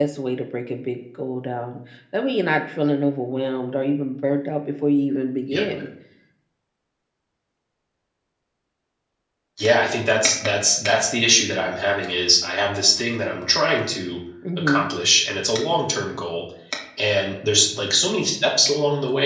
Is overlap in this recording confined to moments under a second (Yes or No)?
Yes